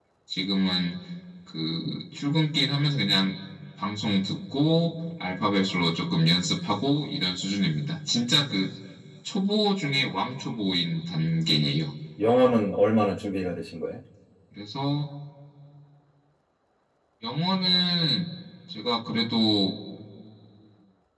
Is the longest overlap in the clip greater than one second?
No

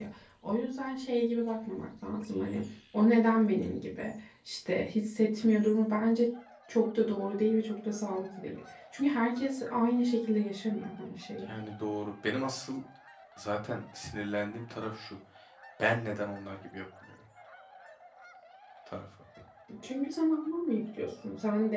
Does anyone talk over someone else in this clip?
No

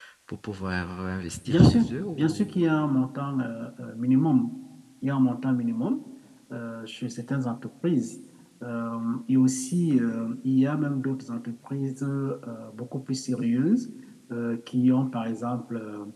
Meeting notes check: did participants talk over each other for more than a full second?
Yes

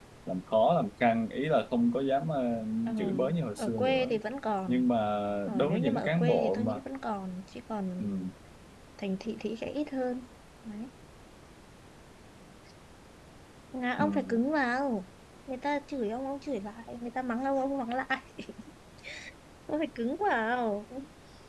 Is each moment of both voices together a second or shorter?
No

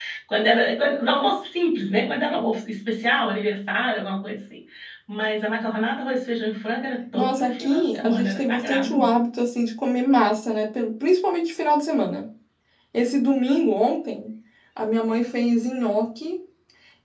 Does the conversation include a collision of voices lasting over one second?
Yes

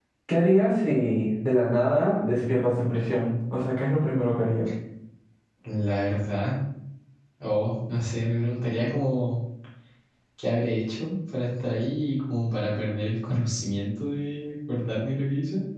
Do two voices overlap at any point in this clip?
No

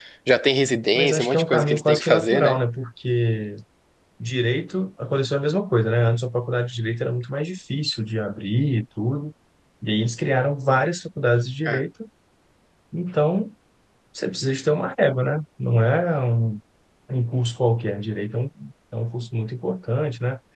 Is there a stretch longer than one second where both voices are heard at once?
Yes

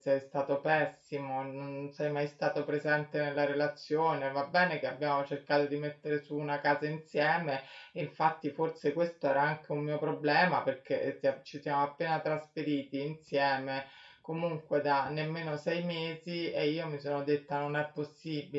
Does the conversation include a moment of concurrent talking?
No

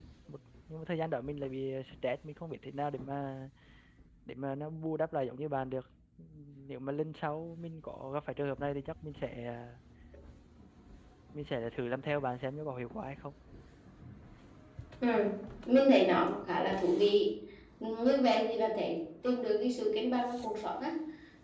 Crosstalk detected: No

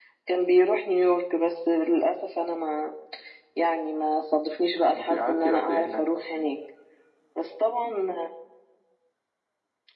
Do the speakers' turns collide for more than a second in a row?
Yes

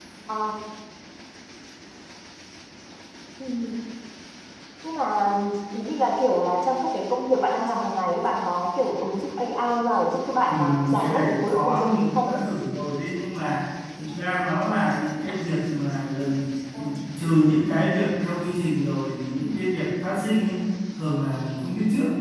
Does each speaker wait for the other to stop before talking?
No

